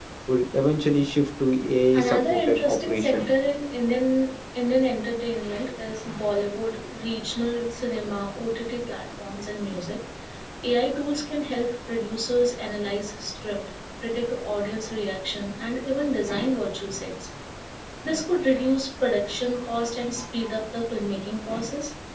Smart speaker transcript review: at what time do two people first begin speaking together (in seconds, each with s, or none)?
1.9 s